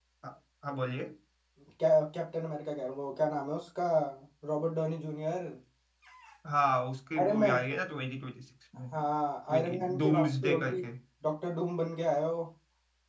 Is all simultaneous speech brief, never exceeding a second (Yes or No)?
No